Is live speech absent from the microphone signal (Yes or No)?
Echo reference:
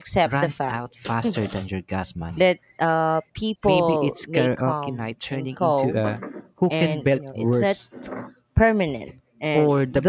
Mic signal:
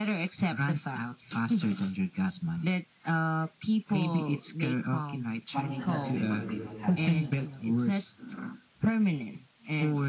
No